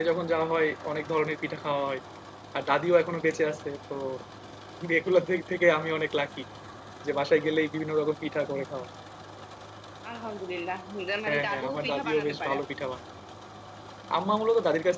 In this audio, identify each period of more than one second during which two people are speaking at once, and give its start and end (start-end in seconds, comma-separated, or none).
11.3-12.5